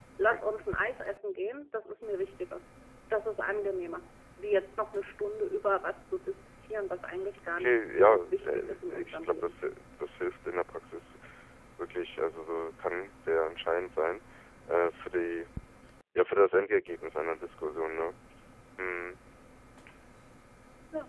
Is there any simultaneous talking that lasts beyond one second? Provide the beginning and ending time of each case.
7.5-9.5

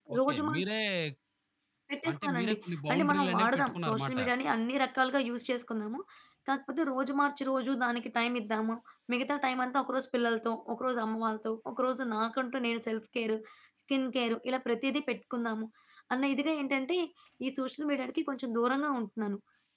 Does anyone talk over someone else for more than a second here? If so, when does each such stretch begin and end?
2.9-4.2

